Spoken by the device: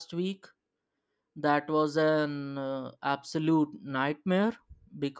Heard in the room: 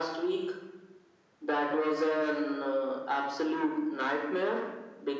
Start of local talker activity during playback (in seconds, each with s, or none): none